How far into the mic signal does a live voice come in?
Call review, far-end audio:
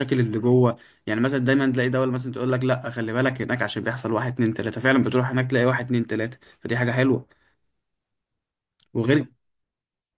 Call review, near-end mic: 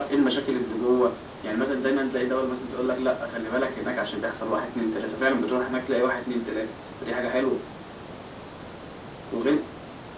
none

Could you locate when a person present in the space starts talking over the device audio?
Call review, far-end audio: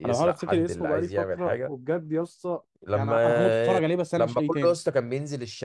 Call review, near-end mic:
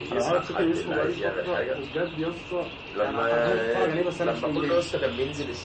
none

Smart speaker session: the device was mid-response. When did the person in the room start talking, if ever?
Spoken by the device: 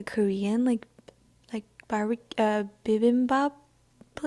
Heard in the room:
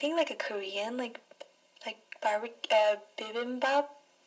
none

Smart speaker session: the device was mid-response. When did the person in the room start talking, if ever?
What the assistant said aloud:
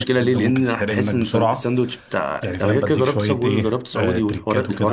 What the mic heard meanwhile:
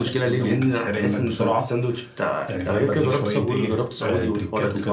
none

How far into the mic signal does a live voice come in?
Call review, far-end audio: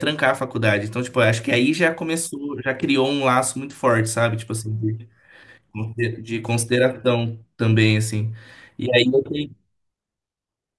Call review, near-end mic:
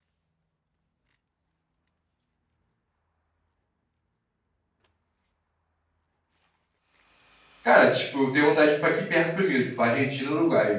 7.6 s

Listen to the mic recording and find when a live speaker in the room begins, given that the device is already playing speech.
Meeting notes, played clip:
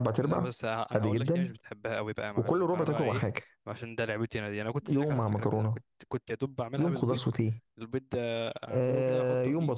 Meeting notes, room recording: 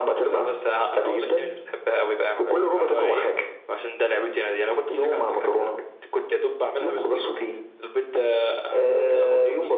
none

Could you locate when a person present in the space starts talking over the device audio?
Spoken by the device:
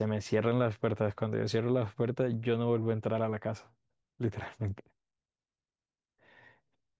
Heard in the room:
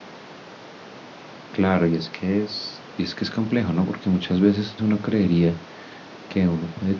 1.5 s

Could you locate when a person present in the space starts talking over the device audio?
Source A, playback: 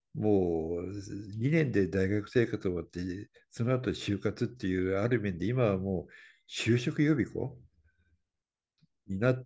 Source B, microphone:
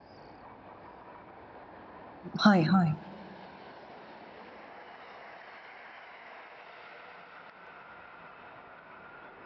2.4 s

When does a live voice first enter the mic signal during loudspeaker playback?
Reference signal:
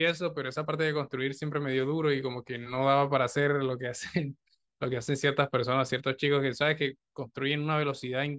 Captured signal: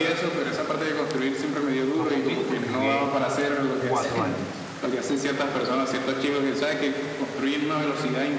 1.9 s

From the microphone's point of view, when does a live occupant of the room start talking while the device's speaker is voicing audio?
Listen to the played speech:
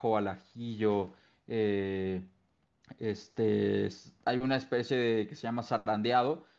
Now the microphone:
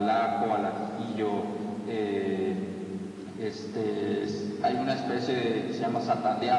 none

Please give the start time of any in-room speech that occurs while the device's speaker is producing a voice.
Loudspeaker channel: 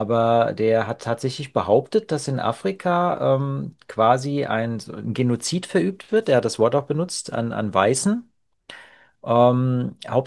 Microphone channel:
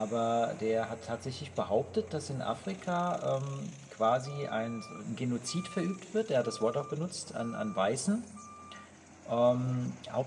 none

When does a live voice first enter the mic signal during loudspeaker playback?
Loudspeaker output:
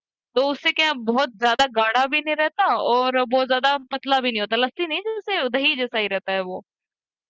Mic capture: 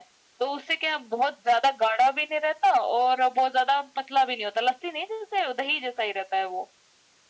none

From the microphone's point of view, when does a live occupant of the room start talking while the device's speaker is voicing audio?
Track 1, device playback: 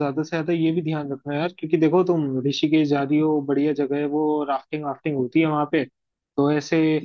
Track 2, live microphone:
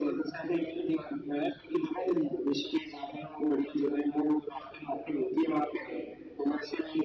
none

